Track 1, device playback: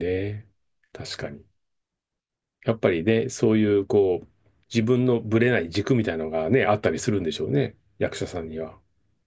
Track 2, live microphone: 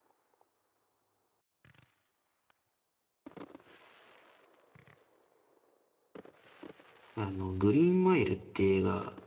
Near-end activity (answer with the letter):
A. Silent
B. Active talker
B